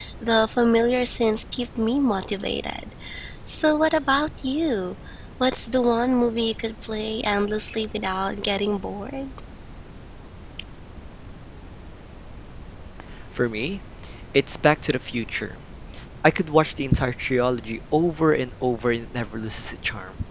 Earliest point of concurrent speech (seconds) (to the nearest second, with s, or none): none